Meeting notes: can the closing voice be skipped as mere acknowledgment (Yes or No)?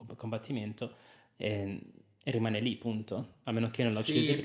No